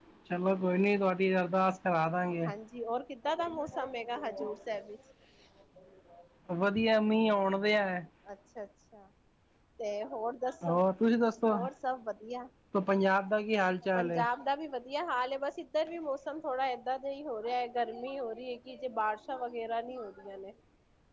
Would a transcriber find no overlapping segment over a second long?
Yes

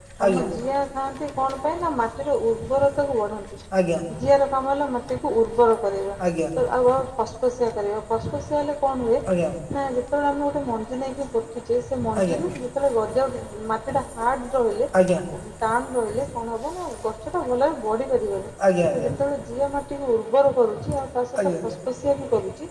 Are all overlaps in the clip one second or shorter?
Yes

